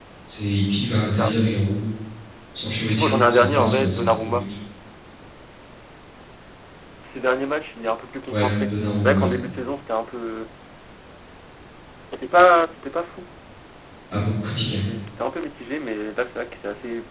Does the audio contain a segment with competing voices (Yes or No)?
Yes